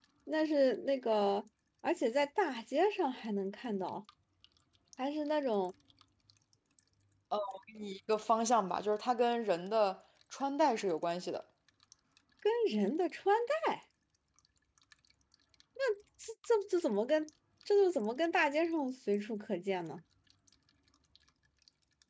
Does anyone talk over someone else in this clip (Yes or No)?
No